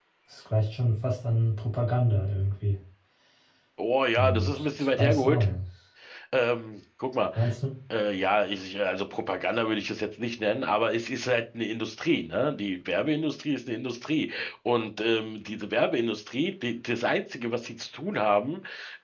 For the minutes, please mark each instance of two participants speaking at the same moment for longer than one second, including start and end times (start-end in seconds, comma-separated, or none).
4.2-5.4